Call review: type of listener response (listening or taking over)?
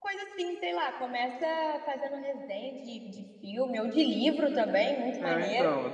taking over